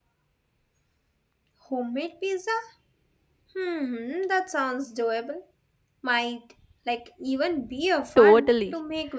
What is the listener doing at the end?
taking over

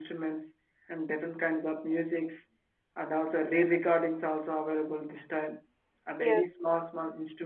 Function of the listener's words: listening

